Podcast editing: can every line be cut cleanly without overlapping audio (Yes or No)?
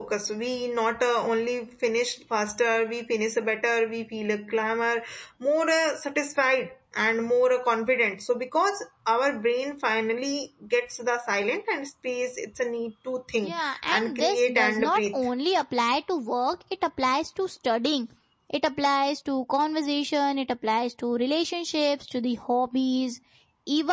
No